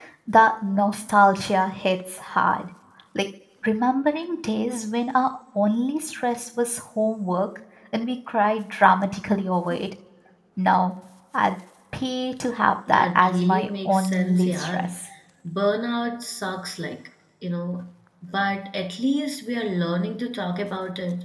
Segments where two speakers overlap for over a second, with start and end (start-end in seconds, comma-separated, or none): 12.9-14.9